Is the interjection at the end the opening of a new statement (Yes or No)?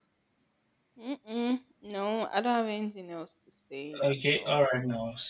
Yes